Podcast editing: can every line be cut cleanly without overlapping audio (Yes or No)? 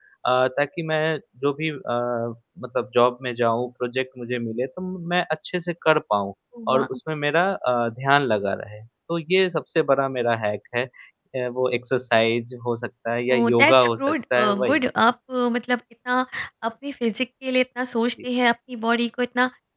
No